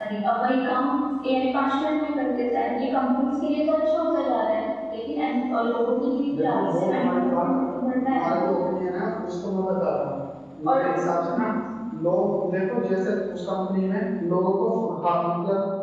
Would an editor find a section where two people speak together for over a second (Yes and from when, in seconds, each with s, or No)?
Yes, from 6.3 s